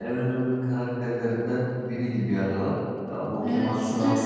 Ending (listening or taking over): taking over